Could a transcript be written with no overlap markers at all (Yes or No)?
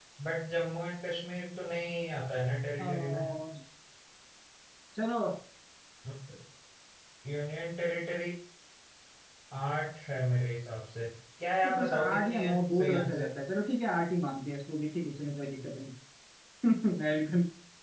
No